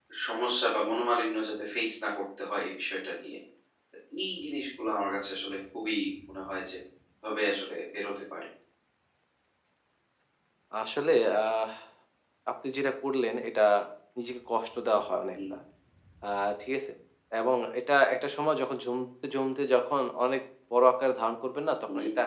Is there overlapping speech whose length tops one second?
No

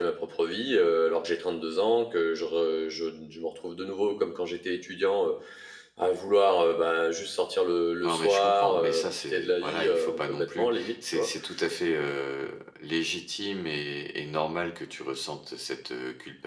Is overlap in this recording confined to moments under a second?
No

